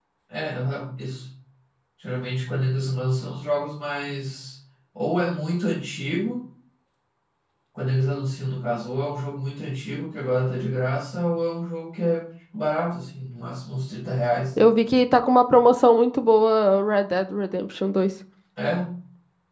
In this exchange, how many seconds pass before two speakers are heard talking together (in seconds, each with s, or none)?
none